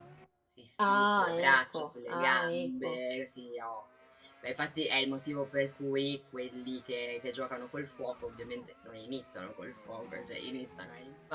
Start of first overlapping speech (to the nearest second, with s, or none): 1 s